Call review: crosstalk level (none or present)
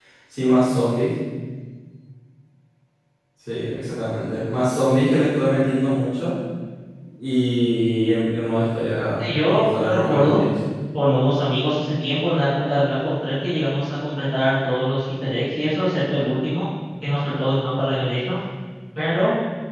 present